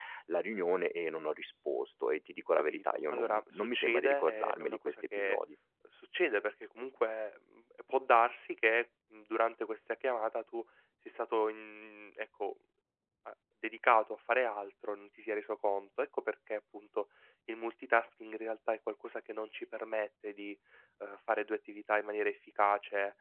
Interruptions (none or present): present